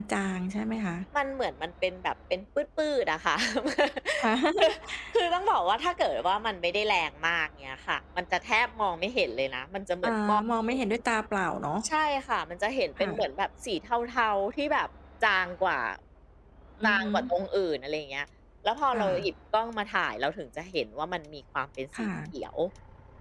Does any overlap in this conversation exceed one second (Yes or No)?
No